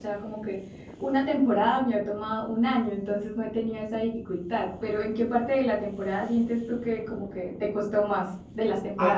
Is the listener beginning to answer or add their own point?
Yes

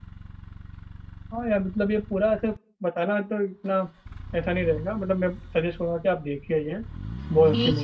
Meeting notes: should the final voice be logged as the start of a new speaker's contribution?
Yes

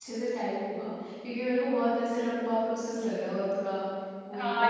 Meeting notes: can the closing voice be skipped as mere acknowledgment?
No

